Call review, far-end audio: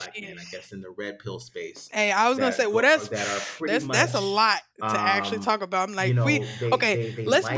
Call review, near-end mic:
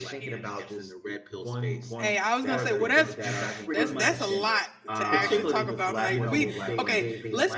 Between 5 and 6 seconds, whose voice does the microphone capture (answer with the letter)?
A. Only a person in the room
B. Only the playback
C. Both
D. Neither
C